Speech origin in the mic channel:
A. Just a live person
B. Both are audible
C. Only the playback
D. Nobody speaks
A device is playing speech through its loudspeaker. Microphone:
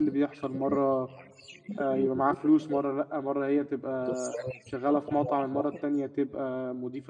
B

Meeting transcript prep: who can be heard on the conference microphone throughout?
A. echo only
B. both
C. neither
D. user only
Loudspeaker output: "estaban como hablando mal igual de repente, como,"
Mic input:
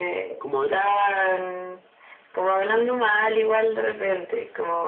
B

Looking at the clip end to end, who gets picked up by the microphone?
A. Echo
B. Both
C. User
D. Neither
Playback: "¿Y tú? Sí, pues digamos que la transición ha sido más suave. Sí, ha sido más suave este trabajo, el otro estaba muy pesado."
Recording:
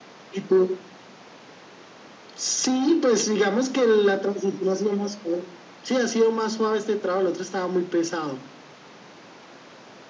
A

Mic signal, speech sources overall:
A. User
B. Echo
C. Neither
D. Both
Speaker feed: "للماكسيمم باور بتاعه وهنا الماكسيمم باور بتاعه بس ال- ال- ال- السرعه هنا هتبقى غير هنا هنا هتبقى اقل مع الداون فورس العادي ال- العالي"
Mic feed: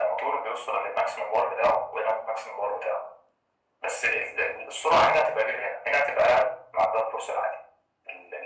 B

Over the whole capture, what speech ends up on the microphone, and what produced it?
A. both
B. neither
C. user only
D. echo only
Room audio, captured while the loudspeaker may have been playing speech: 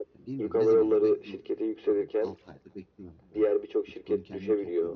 A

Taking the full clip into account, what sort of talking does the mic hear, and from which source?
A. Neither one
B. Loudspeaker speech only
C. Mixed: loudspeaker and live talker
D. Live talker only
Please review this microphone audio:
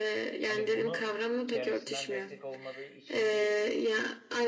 C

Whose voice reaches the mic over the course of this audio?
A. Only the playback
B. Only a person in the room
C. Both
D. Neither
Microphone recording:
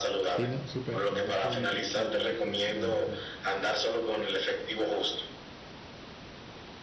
C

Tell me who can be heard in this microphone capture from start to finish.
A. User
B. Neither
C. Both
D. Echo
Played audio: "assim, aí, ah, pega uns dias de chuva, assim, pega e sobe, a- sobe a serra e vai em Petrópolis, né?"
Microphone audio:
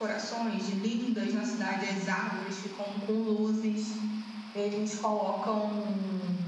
A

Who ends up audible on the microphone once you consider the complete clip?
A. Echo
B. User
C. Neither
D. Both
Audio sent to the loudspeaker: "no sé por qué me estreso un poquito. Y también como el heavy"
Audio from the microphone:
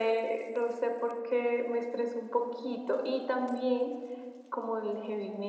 A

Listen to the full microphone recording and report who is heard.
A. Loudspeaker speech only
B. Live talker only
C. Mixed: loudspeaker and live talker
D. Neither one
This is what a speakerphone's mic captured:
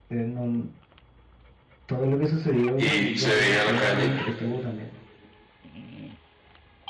C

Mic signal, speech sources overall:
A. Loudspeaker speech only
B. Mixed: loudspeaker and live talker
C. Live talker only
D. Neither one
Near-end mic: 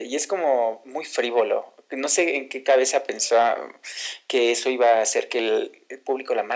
A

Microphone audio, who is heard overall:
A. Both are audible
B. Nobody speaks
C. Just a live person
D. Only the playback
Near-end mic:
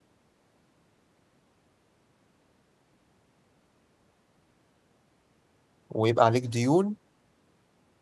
C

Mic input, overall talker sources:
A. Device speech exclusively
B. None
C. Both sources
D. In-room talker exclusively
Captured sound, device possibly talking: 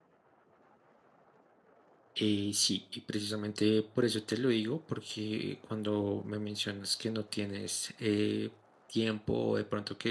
D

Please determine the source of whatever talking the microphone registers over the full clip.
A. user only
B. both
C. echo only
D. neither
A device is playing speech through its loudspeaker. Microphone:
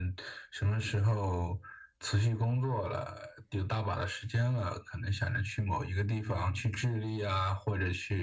C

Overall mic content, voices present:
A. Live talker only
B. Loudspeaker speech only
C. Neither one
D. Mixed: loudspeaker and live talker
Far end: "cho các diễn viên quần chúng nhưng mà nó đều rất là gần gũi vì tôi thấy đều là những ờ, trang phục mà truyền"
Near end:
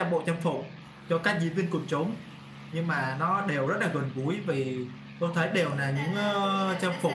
D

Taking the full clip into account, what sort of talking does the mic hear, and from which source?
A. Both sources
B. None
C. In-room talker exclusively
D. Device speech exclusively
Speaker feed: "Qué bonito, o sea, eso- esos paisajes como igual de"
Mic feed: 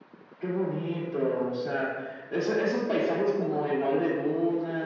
A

